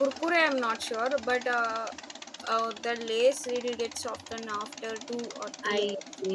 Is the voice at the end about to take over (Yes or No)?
Yes